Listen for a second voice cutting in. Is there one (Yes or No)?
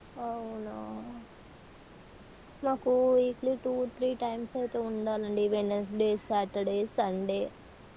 No